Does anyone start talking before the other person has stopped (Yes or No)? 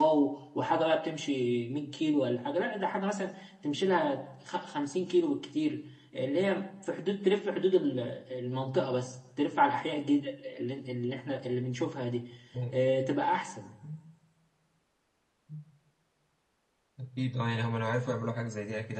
No